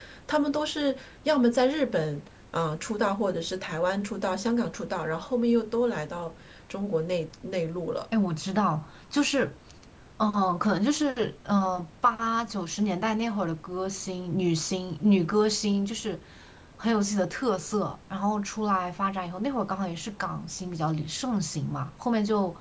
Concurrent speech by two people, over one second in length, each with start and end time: none

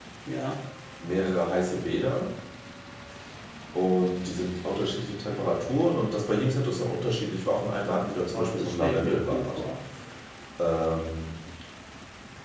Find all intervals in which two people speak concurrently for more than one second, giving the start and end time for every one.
8.3-9.6

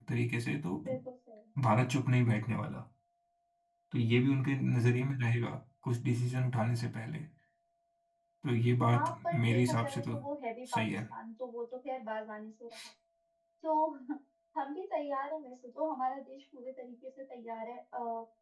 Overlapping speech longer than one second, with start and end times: 8.9-10.2

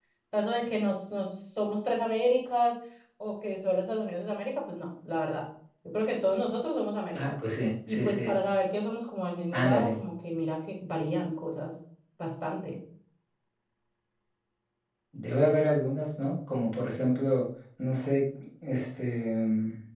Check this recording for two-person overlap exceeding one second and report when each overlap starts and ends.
none

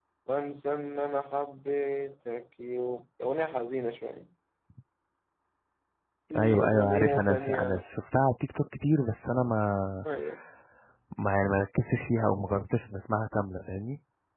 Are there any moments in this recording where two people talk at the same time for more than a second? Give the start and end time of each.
6.4-7.9

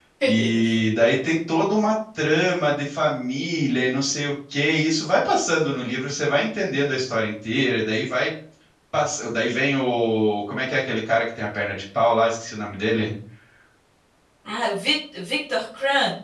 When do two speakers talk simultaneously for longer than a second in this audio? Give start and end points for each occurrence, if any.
none

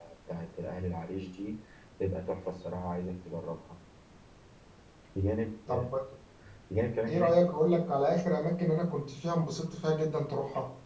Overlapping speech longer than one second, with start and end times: none

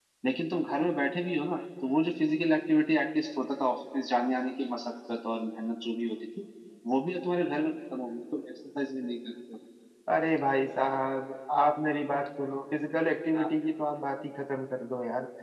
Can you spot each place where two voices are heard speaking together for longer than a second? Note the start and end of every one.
none

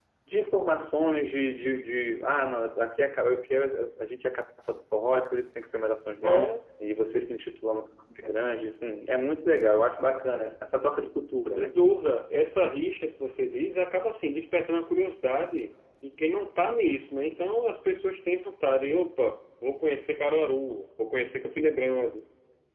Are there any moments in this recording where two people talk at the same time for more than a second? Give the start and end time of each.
none

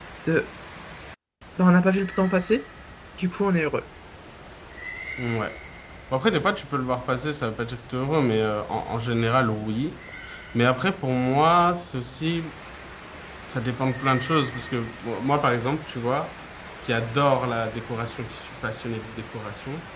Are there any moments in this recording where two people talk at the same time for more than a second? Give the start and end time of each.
none

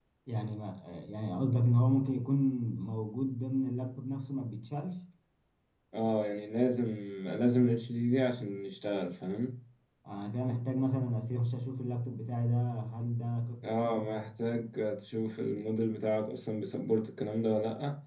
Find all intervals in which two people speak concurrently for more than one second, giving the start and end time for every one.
none

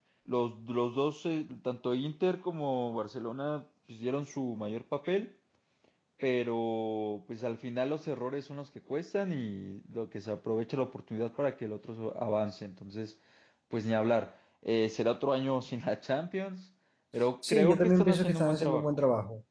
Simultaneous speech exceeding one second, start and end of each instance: 17.5-19.0

